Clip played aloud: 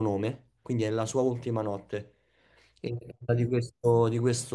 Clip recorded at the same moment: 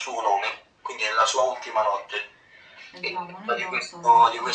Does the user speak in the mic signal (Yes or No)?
Yes